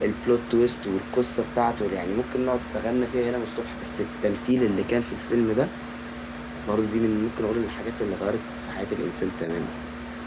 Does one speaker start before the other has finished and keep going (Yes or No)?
No